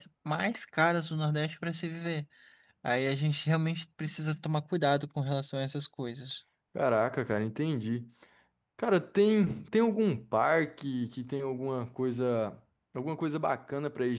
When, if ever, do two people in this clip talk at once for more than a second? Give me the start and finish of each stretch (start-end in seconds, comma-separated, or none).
none